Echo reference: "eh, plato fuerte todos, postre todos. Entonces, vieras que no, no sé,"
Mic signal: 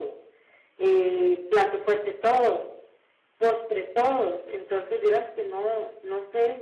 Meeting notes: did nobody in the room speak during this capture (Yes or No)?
Yes